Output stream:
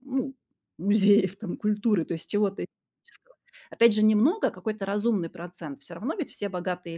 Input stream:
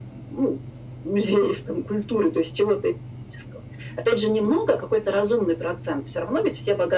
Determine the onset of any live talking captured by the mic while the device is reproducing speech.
none

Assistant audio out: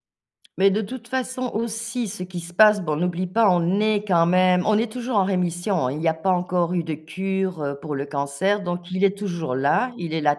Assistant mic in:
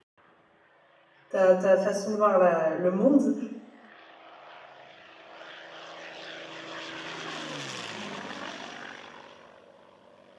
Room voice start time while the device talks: 1.3 s

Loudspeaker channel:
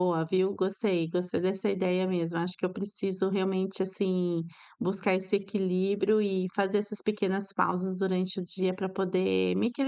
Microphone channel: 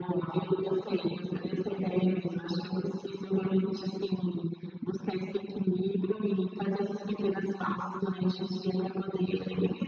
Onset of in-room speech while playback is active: none

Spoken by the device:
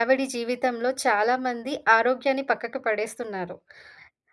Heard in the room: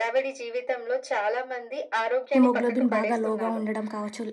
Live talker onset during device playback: 2.4 s

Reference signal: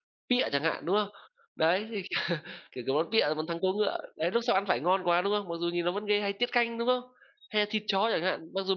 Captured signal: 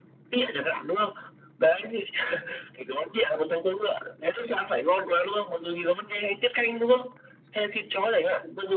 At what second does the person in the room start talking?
none

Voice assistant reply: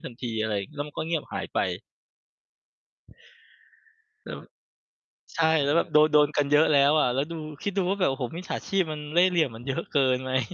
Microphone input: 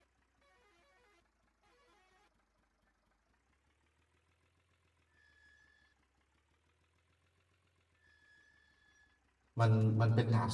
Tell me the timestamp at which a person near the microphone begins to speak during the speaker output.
9.6 s

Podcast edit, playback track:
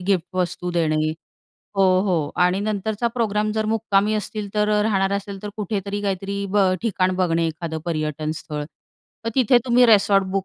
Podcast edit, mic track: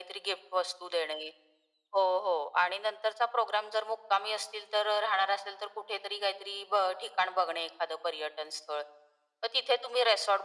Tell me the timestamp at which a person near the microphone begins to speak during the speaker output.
none

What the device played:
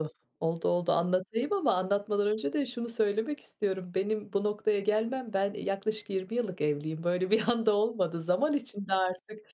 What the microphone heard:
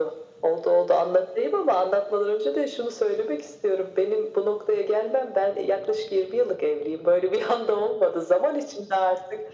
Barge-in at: none

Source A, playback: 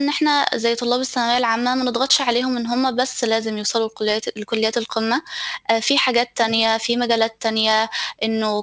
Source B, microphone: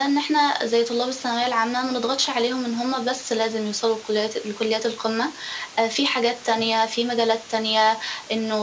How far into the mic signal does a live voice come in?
none

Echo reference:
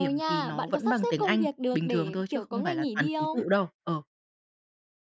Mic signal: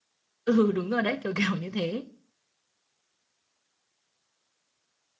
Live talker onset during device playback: 0.4 s

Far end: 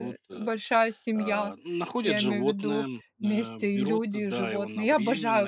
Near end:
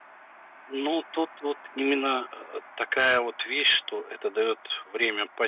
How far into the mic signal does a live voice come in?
0.7 s

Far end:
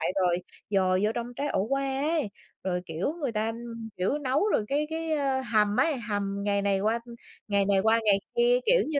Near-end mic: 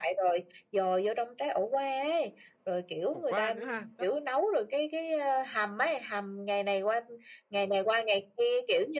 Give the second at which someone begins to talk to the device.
3.1 s

